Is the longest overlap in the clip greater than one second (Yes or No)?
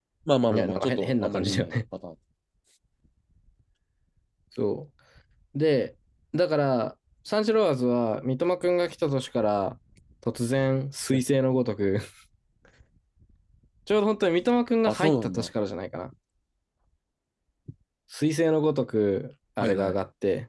Yes